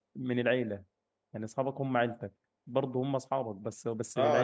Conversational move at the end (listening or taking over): taking over